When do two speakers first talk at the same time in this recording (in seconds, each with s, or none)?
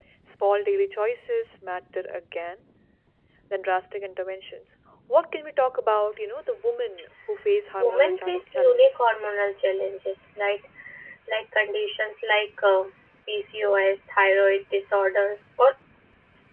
7.7 s